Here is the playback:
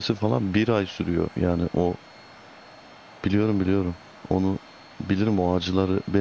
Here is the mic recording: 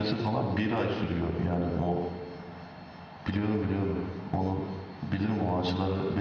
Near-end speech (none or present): none